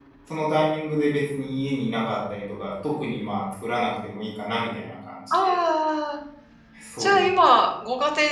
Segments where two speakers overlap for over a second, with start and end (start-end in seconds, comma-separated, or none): none